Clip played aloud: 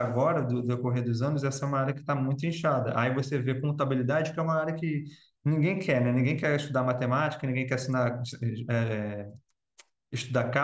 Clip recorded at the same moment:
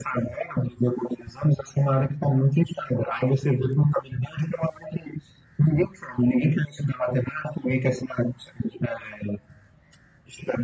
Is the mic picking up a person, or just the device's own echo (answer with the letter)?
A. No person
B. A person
A